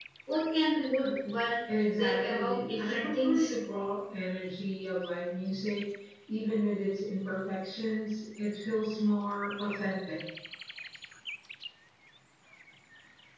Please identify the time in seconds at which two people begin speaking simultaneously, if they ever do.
1.9 s

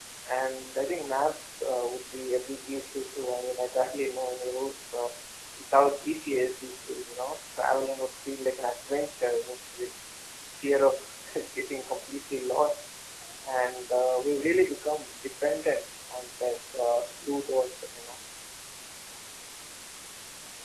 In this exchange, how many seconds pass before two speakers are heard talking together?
none

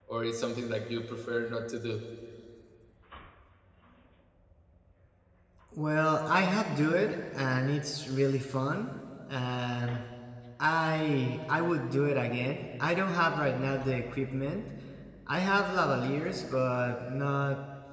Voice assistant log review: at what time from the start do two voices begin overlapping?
none

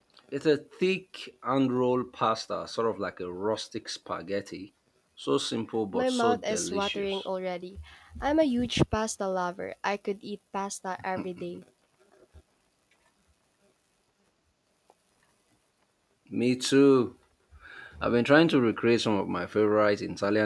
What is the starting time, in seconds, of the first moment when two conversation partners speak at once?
5.9 s

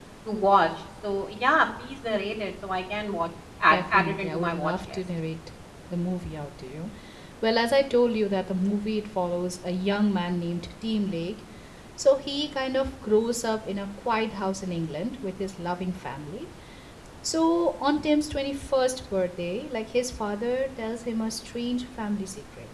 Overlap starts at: 3.7 s

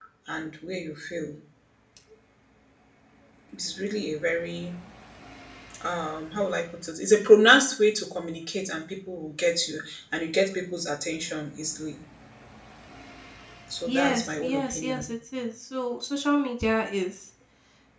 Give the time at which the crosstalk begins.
13.9 s

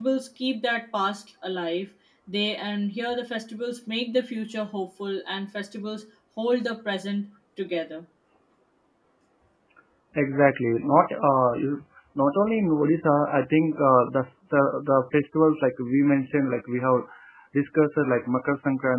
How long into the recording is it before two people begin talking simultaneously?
none

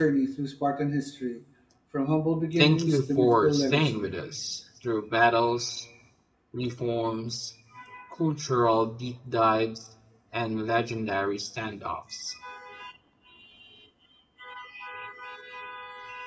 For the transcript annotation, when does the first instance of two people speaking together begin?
2.6 s

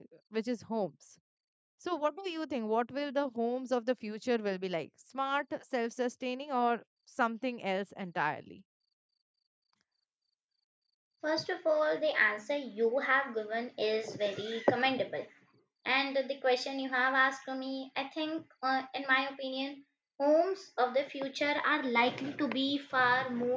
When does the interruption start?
none

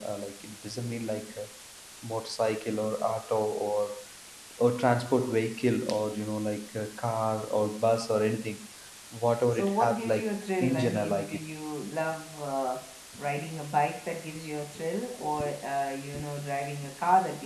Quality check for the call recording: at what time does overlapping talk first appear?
9.5 s

